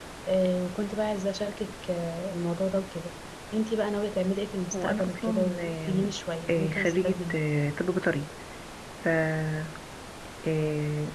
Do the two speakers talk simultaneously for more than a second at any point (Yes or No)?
Yes